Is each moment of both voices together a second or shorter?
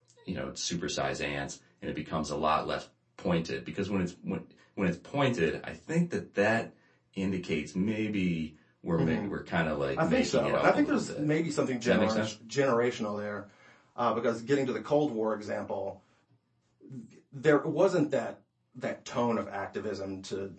No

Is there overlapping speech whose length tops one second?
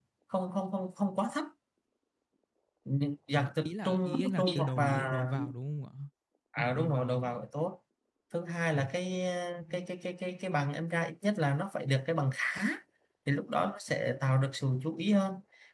Yes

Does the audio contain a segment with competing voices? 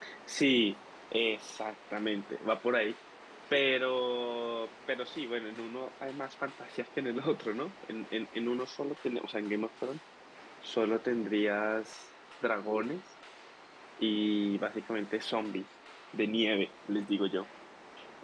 No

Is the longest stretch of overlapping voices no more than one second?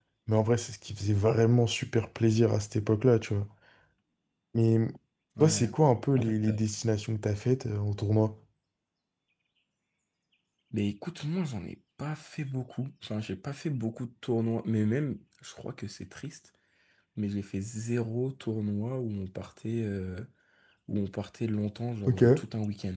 Yes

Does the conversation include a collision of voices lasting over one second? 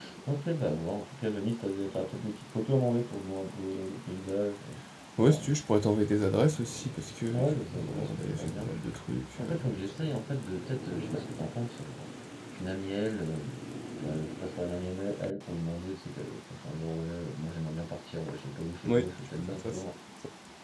Yes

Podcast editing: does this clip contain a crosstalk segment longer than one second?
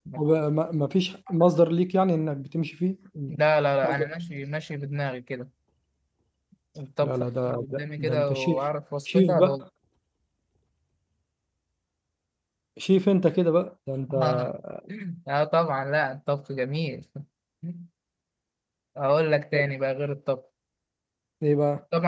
Yes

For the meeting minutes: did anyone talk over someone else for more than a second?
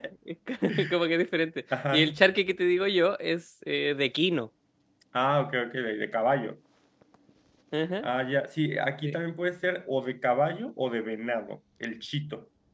No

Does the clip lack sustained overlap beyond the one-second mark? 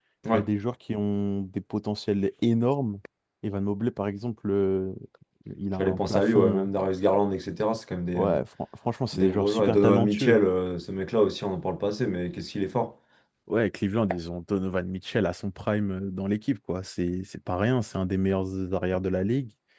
No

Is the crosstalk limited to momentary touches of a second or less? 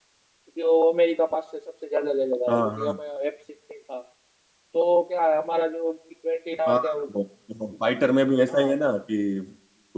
Yes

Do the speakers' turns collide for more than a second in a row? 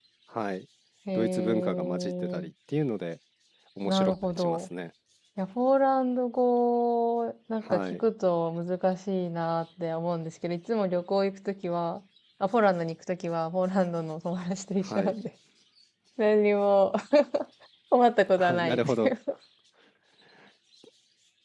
Yes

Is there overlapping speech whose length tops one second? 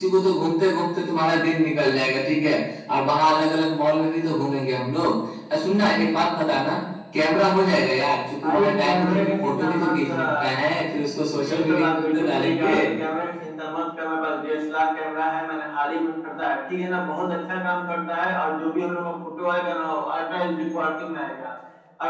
Yes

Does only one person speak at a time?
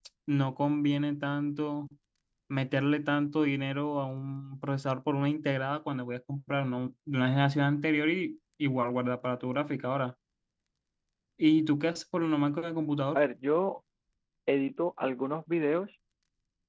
Yes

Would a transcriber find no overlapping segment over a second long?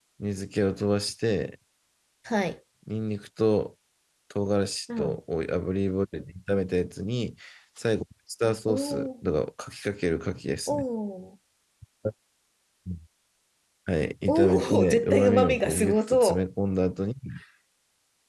No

